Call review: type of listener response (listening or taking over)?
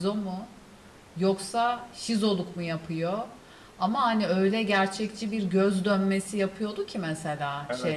listening